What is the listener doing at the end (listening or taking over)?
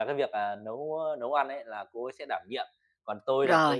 listening